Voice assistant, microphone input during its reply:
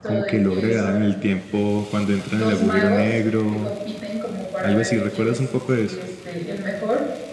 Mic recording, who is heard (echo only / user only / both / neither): both